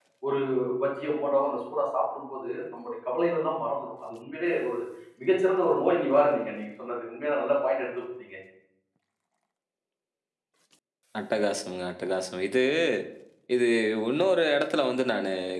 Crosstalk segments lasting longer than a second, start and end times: none

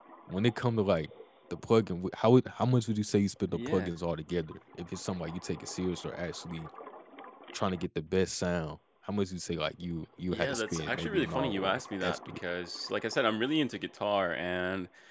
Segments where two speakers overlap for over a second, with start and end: 10.3-12.4

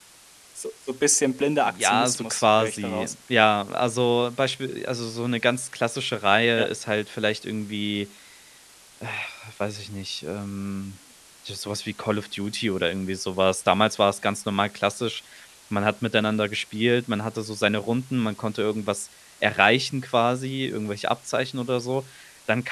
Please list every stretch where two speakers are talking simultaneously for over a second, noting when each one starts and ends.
1.6-3.1

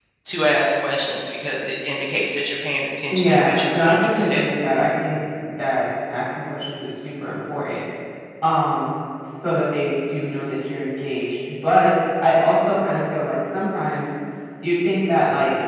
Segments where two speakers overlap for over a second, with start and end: 3.1-4.5

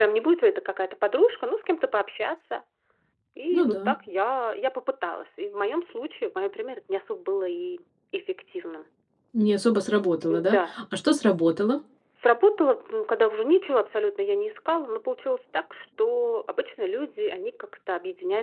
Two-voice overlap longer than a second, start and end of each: none

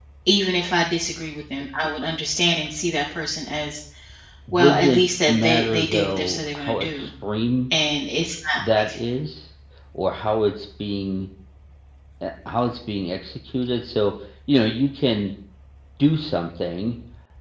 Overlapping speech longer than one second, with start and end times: 4.5-7.1

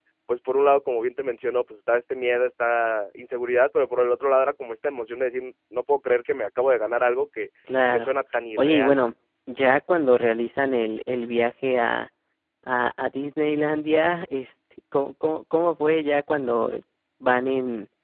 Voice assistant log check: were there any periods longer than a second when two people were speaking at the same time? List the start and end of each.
none

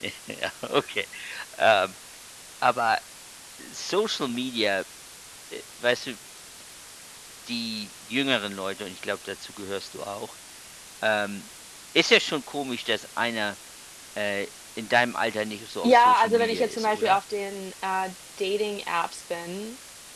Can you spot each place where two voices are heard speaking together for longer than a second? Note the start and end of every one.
15.8-17.2

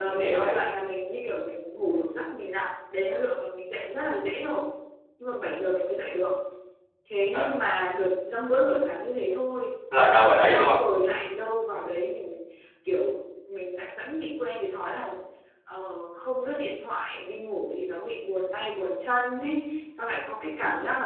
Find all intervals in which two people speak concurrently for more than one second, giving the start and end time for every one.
none

